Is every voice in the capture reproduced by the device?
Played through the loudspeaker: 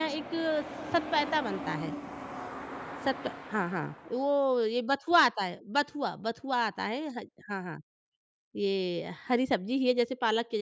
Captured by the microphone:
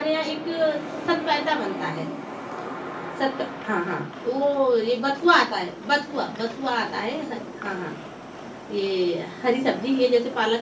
Yes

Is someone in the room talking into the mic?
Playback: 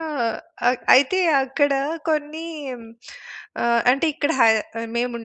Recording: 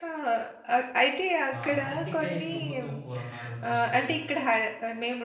Yes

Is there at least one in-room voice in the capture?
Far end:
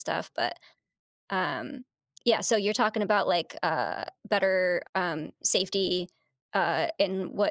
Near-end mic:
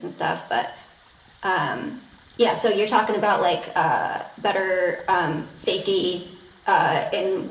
No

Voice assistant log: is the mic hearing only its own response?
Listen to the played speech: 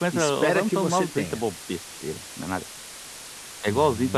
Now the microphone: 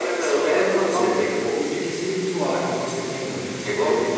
No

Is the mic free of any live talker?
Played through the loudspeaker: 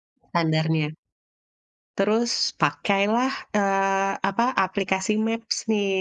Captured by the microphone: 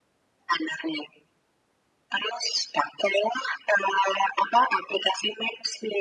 Yes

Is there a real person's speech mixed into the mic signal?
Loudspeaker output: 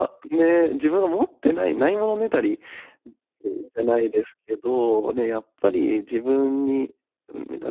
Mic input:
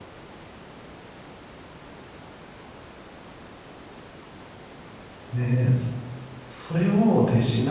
Yes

